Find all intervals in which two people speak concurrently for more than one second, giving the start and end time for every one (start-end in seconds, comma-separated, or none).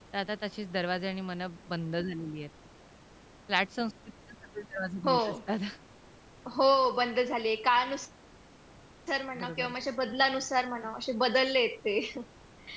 none